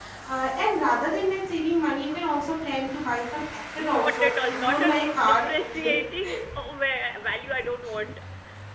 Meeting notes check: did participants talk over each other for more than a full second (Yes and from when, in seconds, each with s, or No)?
Yes, from 3.8 s